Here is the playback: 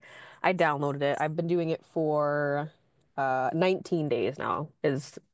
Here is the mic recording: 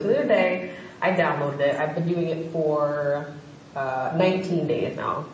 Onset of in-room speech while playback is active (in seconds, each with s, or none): none